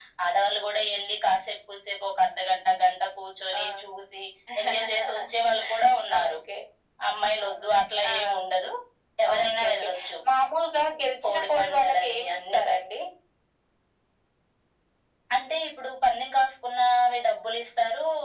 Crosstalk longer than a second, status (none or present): present